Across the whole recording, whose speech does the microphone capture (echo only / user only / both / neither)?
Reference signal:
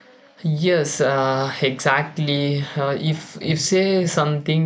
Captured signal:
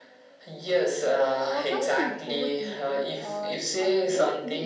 both